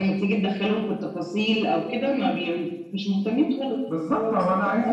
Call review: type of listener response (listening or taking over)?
taking over